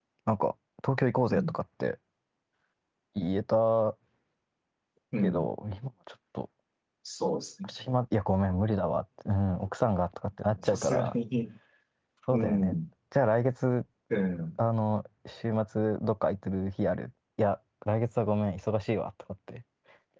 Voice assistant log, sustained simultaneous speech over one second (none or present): none